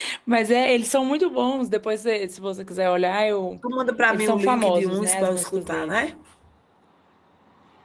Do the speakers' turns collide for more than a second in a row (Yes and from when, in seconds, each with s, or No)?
Yes, from 4.1 s